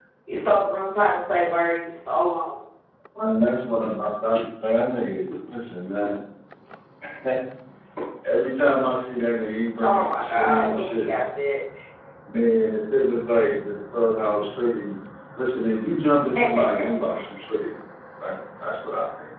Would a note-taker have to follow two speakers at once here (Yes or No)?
Yes